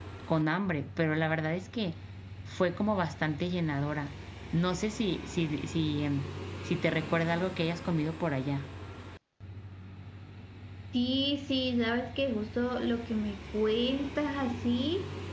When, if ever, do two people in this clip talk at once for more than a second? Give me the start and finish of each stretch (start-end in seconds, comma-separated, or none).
none